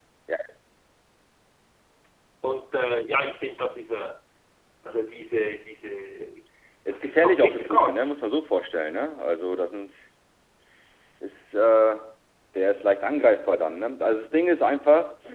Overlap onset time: 7 s

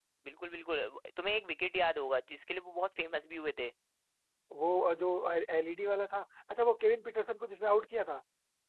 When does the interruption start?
none

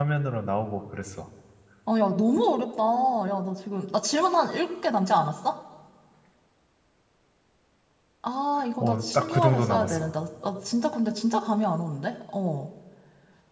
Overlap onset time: 9 s

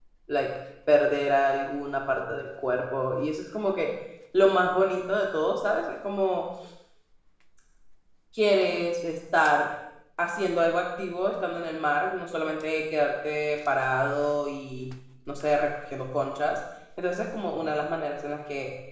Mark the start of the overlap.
none

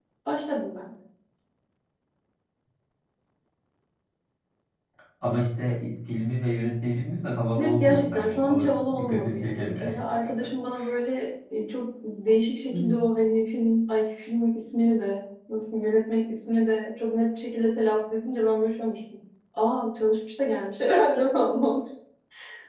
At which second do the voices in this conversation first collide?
8 s

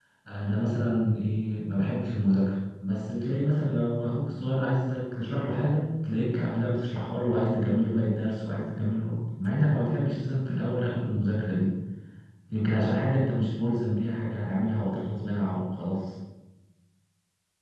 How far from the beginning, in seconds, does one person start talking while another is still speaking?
none

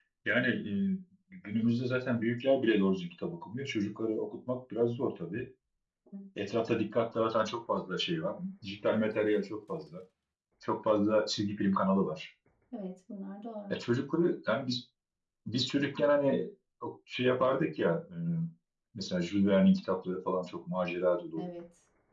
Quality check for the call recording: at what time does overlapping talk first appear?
none

